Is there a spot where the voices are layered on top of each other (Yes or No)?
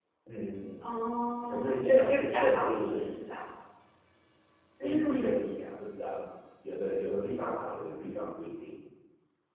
Yes